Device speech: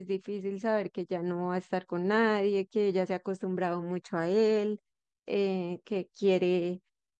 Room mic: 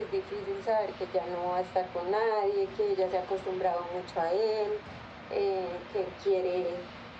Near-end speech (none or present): none